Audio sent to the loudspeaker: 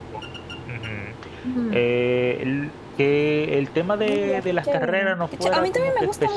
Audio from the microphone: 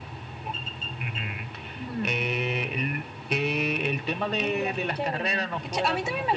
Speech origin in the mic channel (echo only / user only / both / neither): echo only